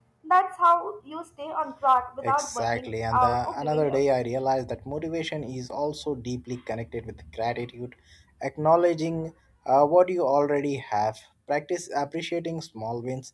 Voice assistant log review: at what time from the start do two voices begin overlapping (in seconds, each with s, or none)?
2.2 s